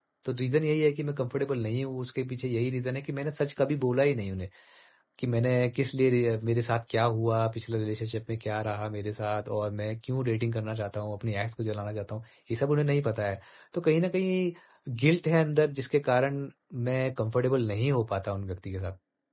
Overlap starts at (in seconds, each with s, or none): none